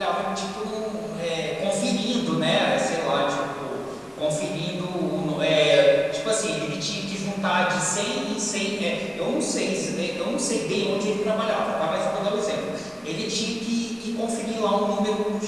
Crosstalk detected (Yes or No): No